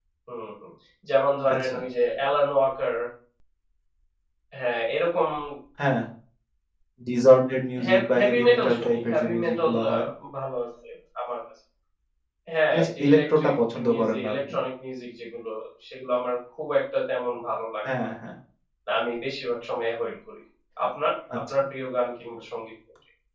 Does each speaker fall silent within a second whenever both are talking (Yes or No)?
No